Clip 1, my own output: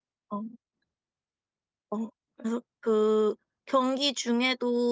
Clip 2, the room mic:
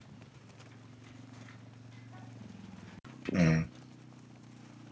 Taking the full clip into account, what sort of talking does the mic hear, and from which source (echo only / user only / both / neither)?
user only